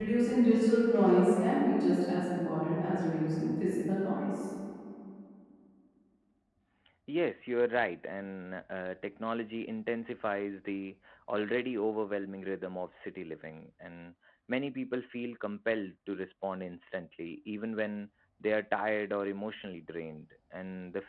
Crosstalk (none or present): none